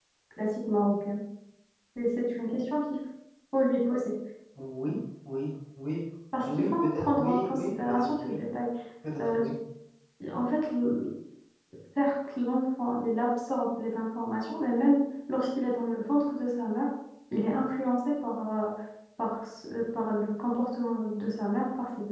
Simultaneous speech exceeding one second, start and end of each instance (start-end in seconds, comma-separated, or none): 6.3-8.4